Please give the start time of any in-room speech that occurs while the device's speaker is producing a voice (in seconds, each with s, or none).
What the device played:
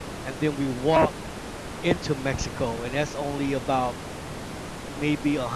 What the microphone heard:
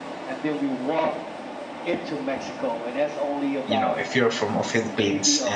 3.6 s